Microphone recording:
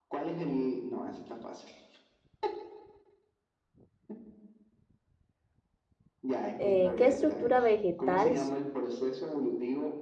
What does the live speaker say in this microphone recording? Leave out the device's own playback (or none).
Eh, ¿qué estructura vegetal s-